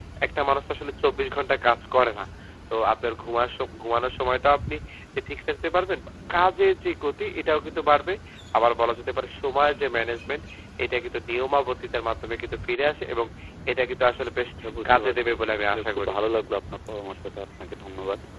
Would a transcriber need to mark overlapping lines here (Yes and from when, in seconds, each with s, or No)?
Yes, from 14.9 s